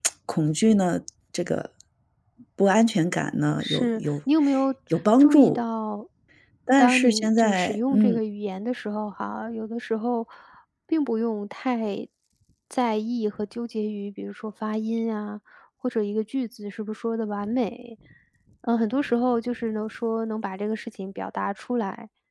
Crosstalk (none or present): present